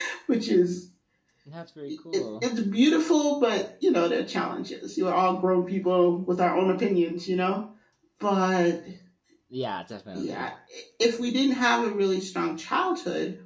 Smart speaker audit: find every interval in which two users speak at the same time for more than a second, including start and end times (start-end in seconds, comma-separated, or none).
none